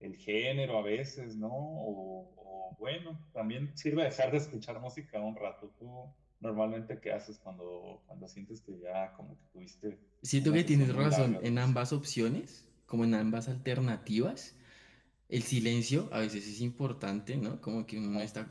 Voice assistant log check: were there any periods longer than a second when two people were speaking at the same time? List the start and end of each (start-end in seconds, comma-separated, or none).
10.4-11.7